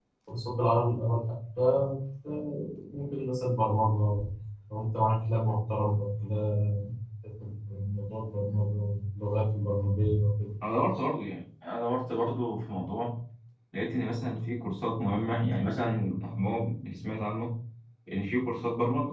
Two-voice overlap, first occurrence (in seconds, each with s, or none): none